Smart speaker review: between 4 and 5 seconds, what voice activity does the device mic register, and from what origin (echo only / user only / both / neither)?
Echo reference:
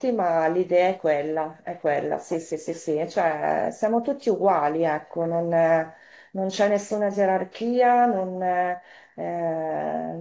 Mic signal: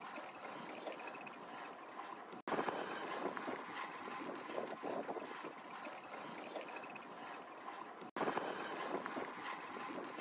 neither